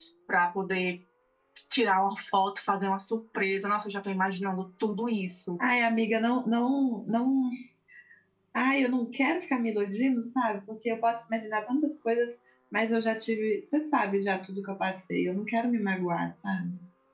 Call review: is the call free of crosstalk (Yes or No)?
Yes